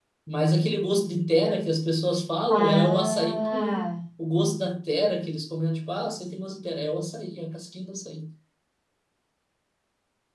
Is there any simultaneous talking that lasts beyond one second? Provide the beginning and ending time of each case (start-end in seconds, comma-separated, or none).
2.5-3.9